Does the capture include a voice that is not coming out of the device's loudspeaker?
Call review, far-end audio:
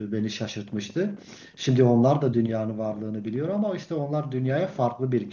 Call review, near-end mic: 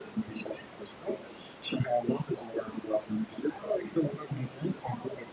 No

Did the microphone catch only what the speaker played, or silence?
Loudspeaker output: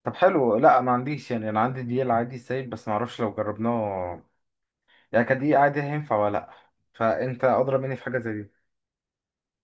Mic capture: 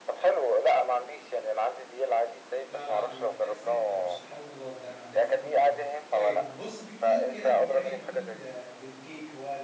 No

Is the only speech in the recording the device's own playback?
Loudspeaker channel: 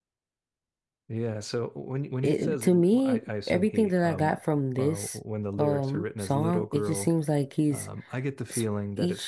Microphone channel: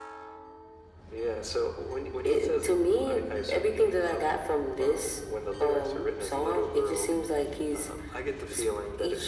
Yes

